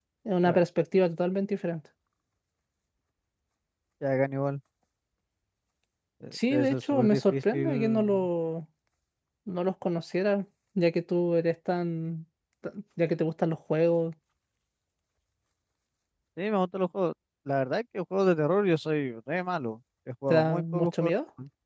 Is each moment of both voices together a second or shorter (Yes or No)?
No